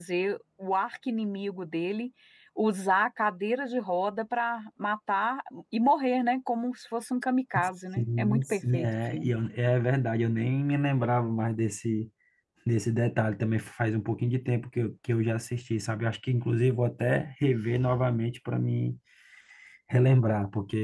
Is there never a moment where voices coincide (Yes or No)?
No